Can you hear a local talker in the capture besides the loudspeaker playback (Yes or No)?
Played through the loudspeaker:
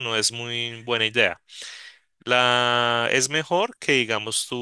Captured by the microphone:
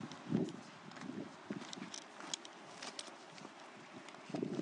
No